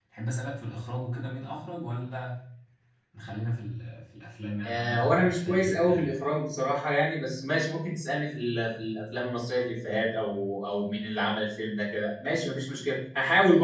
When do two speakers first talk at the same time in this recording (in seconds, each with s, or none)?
4.6 s